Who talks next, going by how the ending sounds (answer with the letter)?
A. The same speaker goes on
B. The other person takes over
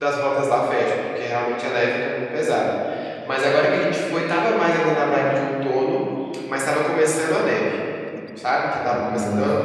A